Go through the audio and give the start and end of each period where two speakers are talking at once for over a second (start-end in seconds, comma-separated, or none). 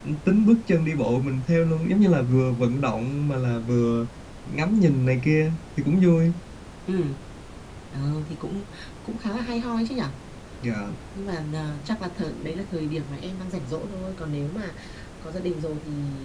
none